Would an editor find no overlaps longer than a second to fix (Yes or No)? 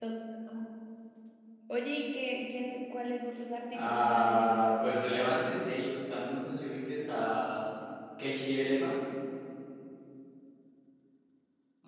No